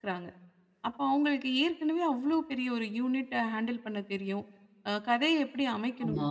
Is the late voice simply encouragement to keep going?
Yes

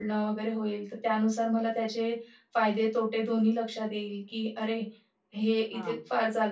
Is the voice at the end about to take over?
No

